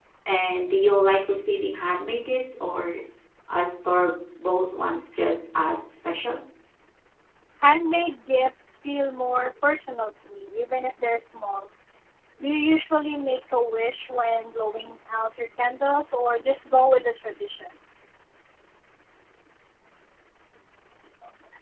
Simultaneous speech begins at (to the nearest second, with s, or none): none